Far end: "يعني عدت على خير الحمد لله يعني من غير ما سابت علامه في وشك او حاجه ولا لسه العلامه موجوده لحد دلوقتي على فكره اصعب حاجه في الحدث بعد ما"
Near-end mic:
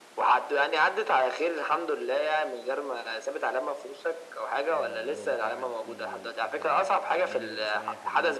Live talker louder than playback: No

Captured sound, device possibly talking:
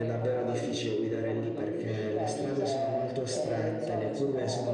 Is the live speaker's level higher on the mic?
No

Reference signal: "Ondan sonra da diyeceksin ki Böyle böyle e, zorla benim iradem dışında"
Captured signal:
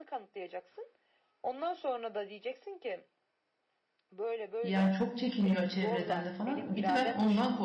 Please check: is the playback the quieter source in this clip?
Yes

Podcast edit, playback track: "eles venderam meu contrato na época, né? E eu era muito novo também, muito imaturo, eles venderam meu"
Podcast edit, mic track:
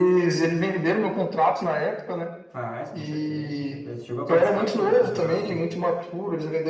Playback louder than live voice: Yes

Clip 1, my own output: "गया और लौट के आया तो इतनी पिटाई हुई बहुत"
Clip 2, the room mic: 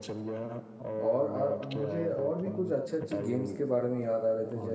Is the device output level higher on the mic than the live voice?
No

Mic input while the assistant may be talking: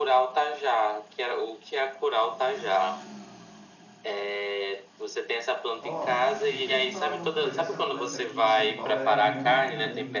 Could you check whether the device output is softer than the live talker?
No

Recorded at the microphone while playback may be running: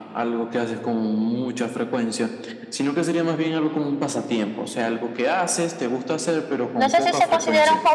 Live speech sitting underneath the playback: No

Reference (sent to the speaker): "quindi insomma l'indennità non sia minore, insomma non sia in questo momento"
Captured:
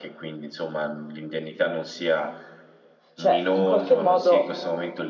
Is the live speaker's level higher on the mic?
Yes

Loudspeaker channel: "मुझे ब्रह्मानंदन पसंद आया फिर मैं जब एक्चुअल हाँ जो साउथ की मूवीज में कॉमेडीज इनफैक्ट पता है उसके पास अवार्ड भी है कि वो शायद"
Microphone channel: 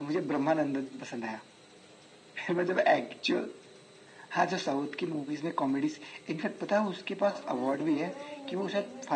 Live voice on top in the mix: No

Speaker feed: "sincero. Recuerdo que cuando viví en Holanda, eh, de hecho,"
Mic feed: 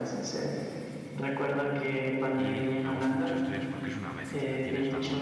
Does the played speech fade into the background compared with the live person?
No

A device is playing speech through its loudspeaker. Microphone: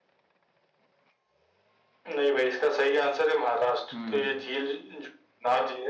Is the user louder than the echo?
No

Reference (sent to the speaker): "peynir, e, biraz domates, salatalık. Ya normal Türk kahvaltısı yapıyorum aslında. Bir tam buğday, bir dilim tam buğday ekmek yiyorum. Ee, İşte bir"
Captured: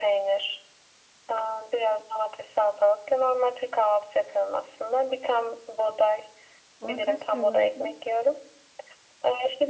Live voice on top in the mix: No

